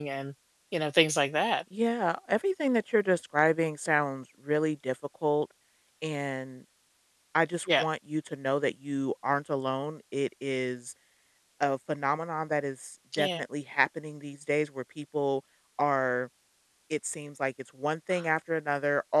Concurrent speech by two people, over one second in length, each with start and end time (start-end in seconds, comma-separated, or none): none